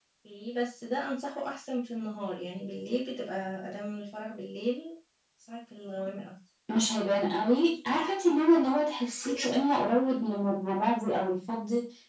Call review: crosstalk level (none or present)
none